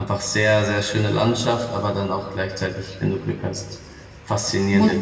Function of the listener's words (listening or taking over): listening